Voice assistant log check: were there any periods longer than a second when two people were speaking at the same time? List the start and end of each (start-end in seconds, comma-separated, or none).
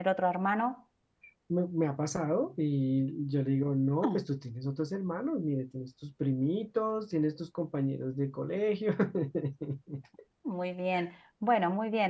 none